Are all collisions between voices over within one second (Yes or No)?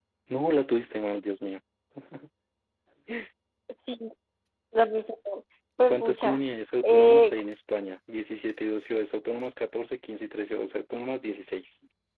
Yes